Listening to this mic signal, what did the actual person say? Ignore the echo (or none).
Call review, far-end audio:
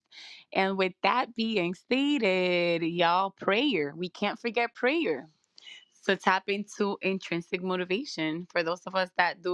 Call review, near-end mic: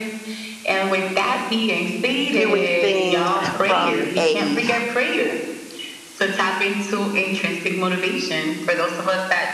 doing things from a